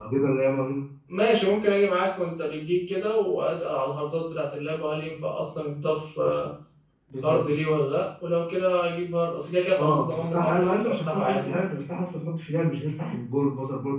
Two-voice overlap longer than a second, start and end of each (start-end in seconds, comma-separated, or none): 9.8-11.6